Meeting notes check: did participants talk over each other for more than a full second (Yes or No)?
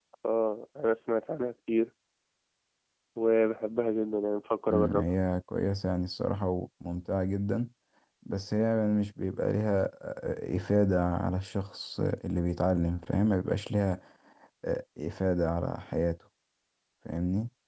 No